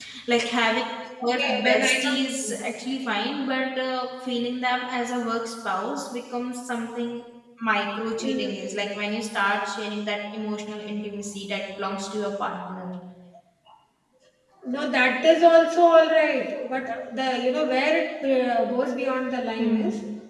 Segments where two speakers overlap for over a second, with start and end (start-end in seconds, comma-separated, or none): 1.4-2.6